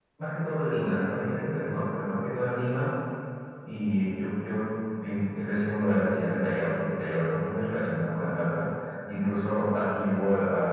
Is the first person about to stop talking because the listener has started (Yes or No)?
No